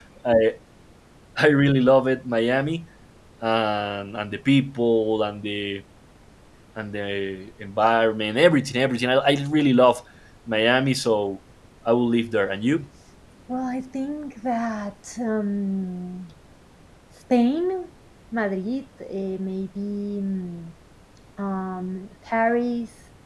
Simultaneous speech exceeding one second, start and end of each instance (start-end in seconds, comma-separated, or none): none